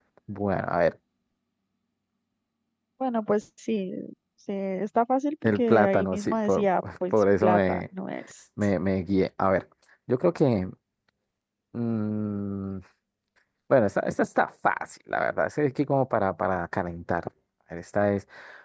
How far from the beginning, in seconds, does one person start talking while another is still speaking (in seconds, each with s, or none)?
5.4 s